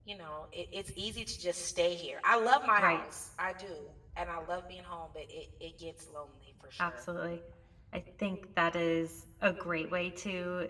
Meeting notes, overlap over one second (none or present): none